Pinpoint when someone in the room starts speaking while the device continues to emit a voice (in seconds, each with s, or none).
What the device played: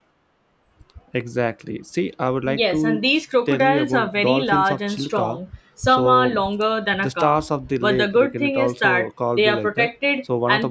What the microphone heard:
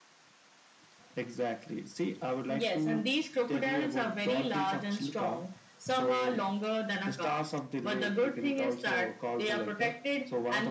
none